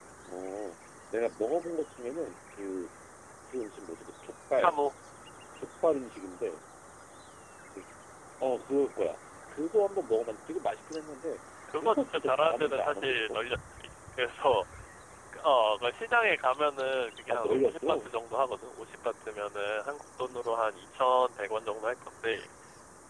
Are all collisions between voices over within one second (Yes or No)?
No